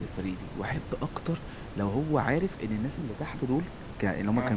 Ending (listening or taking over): listening